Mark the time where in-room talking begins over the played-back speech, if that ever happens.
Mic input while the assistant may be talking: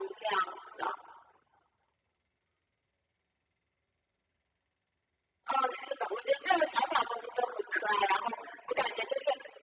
none

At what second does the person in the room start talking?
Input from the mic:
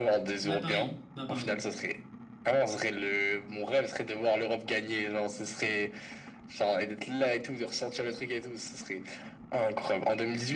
0.4 s

